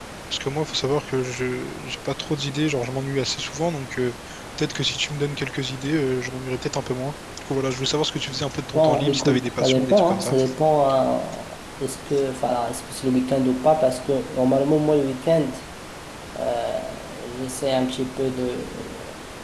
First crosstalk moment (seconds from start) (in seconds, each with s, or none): 8.8 s